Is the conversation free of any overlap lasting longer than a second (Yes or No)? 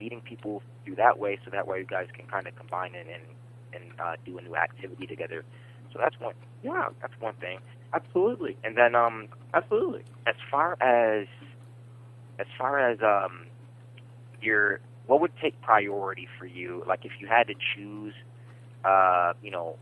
Yes